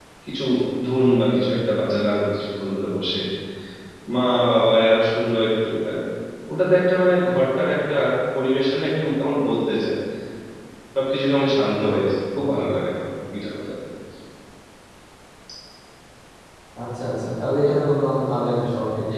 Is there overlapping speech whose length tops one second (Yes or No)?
No